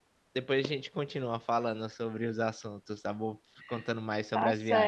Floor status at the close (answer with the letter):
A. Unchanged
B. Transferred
B